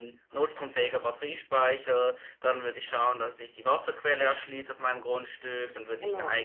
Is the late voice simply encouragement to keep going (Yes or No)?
Yes